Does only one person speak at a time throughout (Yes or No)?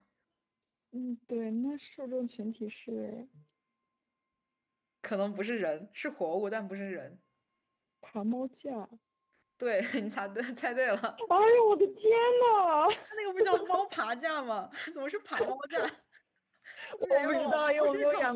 No